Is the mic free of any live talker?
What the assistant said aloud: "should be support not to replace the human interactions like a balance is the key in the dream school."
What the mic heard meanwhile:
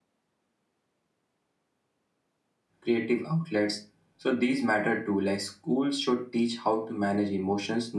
No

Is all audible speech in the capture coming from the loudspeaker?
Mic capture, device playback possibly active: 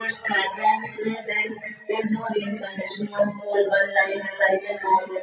Yes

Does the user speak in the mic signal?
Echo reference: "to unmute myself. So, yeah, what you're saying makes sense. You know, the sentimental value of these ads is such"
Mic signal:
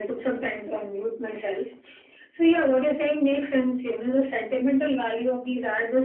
No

